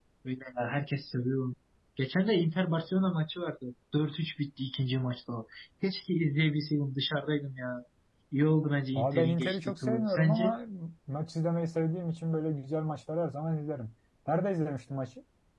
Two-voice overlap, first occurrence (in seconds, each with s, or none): 8.9 s